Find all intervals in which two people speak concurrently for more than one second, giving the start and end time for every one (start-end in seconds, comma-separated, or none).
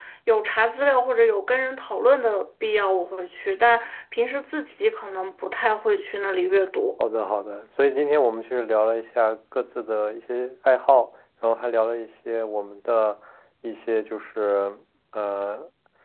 none